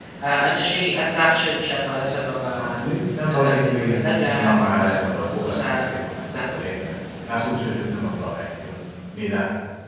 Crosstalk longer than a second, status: present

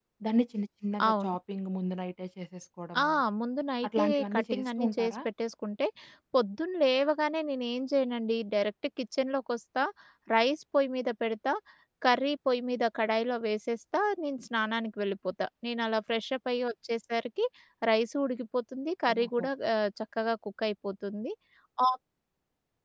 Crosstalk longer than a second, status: present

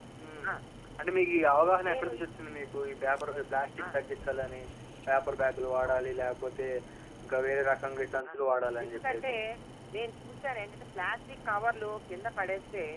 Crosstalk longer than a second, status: none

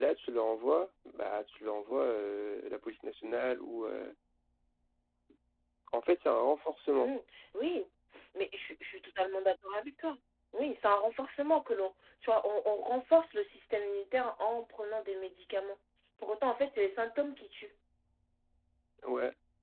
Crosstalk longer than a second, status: none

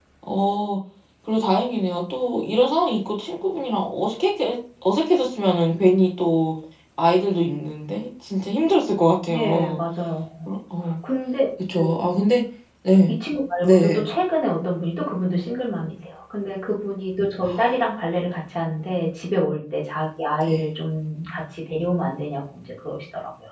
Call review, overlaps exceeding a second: none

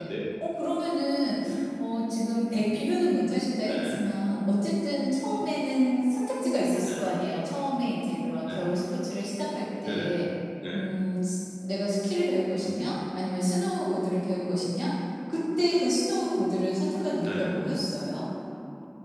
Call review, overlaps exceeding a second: none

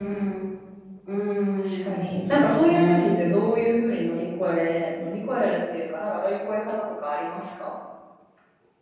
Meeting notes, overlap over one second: present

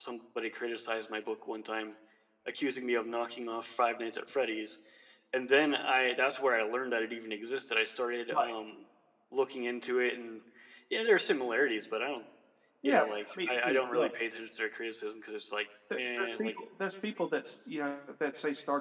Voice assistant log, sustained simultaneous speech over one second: present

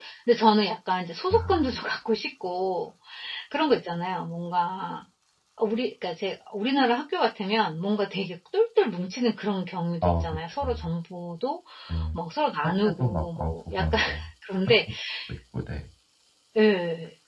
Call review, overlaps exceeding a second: present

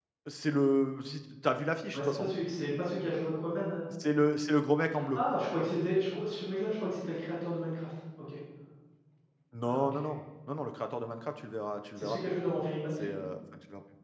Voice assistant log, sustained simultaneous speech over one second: none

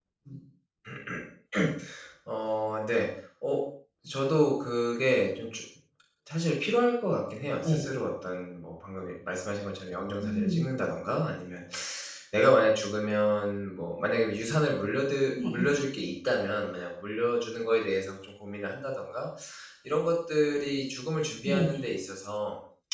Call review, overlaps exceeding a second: none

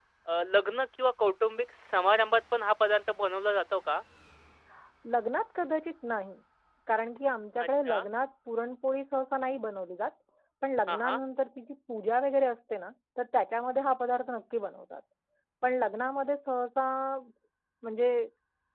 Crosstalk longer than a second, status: none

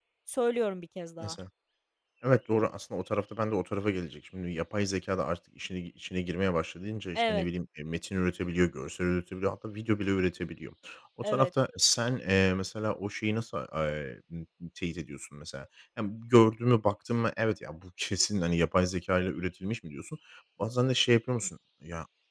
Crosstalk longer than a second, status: none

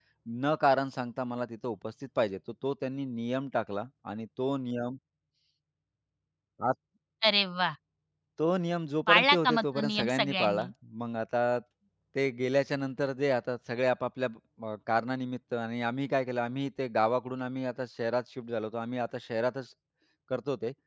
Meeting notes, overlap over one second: present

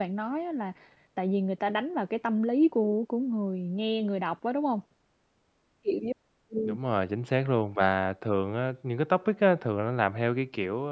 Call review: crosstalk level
none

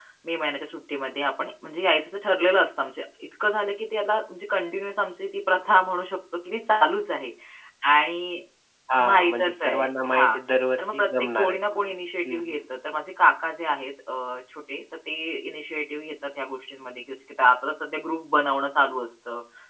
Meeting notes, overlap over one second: present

